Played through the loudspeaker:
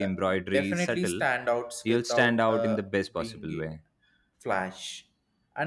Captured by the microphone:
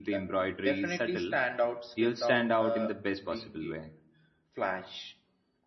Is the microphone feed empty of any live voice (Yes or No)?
Yes